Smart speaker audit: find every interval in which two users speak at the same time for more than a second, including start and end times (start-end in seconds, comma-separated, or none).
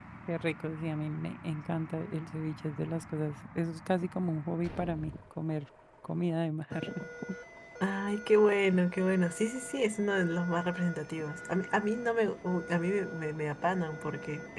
none